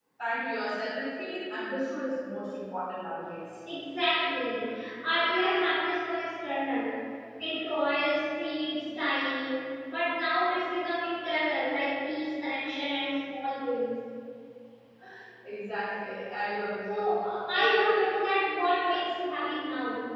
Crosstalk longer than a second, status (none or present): none